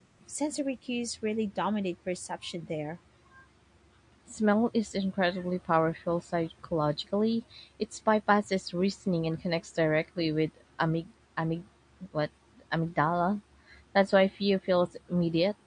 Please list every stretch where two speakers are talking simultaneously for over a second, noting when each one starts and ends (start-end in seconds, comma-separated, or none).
none